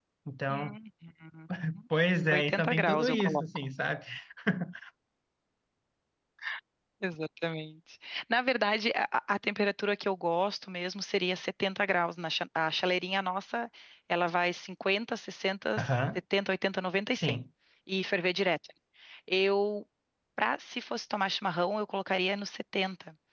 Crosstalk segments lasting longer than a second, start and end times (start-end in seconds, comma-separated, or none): 2.3-3.7